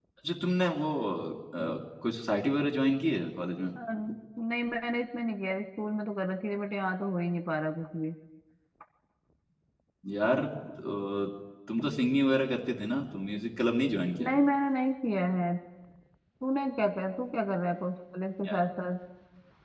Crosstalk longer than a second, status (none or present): none